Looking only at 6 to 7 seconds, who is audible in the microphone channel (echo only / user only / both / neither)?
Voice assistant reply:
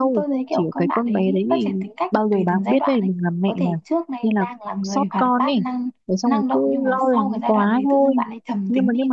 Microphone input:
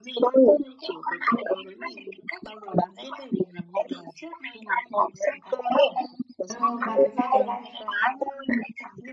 both